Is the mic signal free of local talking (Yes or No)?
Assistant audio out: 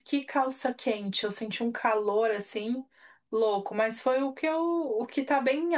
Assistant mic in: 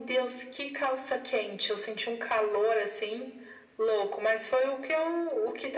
Yes